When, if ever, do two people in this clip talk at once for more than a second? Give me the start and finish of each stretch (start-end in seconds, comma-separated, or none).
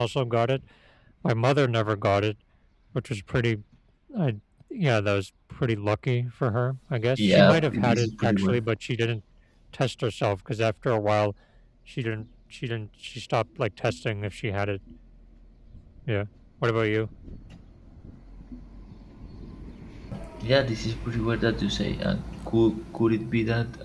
7.2-8.6